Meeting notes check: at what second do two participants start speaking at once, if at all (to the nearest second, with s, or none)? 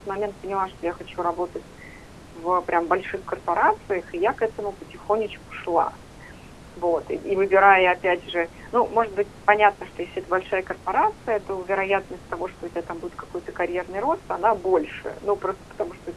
none